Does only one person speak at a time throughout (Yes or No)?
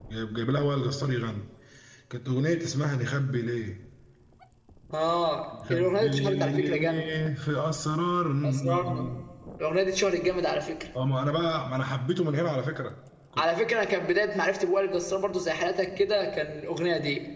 No